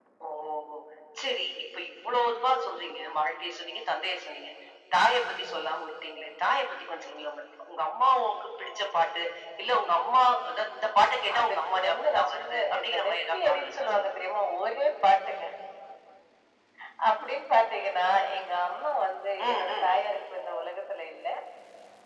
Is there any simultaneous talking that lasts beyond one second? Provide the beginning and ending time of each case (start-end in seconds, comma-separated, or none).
11.4-14.1